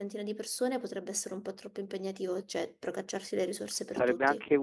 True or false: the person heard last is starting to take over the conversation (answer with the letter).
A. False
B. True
B